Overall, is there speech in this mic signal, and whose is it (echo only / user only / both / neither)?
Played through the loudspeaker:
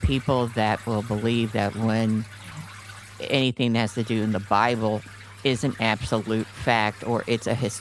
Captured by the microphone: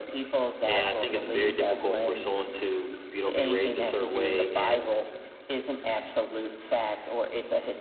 both